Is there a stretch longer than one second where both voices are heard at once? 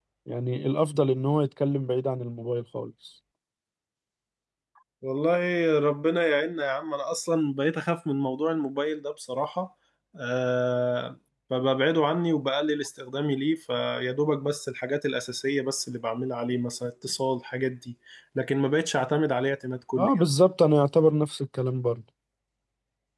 No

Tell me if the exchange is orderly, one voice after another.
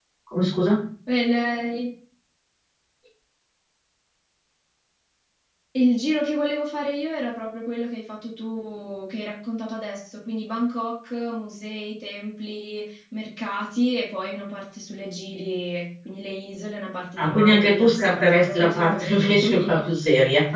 No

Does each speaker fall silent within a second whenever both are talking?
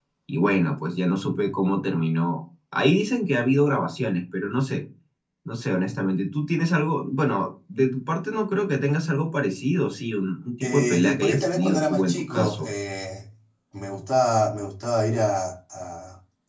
No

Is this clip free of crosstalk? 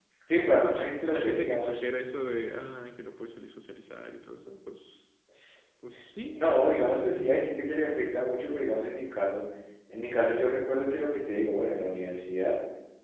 No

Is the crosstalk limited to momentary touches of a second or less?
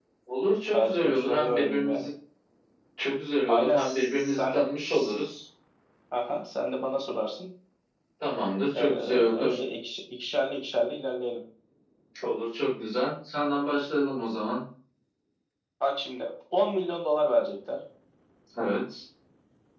No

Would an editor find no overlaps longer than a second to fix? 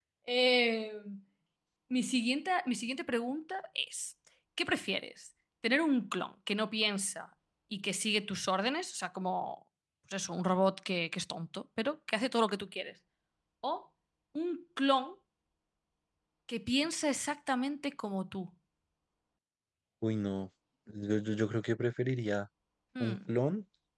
Yes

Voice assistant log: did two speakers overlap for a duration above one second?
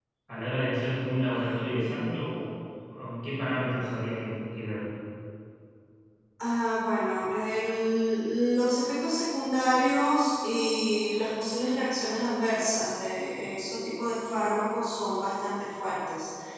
No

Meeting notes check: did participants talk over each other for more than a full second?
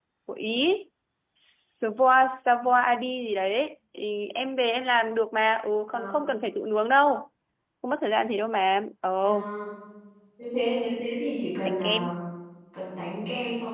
No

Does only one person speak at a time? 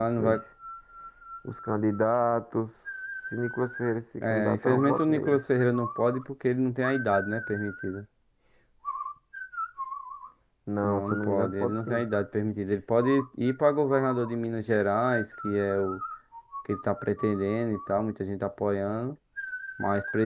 No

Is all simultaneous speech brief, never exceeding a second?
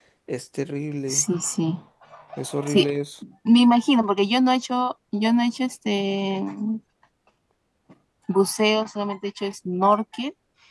Yes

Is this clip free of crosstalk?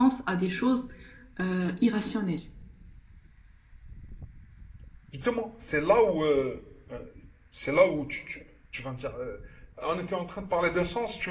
Yes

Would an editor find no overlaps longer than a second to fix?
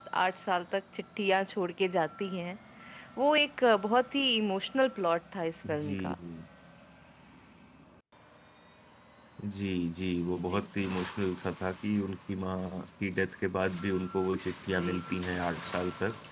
Yes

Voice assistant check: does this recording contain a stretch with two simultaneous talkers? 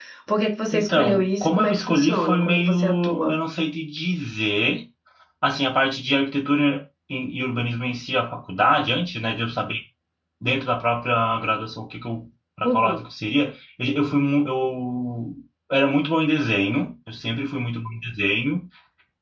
Yes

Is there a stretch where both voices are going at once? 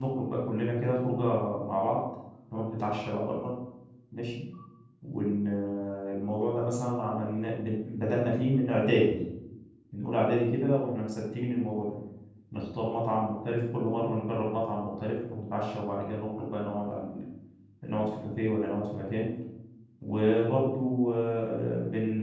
No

